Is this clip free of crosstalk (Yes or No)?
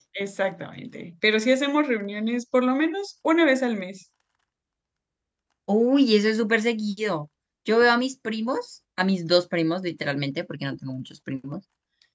Yes